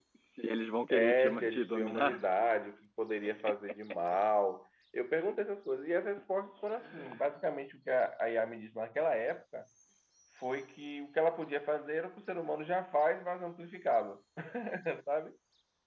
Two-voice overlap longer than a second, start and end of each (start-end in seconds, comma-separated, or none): 0.9-2.2